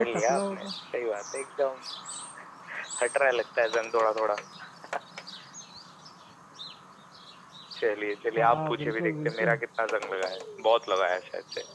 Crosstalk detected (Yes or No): Yes